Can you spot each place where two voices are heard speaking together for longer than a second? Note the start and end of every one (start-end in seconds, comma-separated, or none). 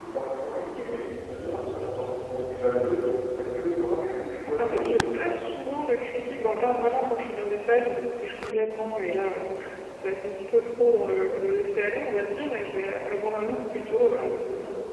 none